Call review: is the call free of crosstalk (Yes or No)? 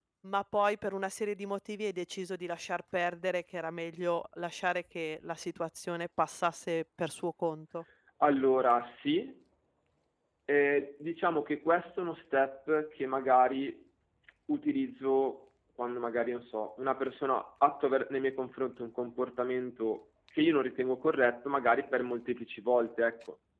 Yes